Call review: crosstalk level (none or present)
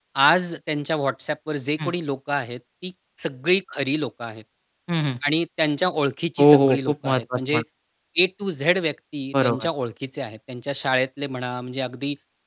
present